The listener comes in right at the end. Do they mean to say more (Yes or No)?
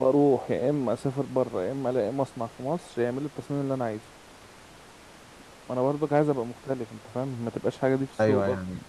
Yes